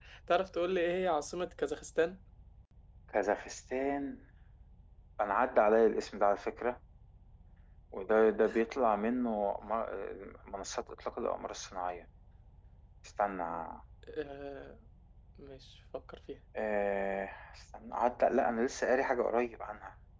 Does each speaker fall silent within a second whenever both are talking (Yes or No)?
Yes